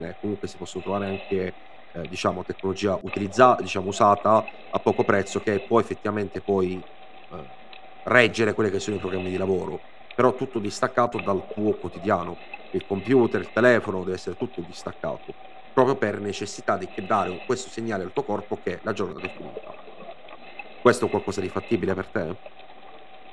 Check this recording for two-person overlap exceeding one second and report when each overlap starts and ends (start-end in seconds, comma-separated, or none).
none